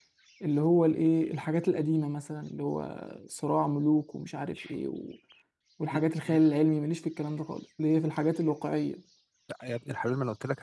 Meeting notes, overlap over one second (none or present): none